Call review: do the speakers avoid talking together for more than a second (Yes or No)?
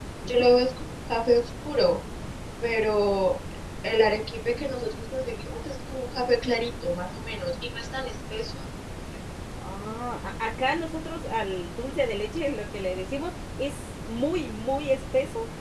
Yes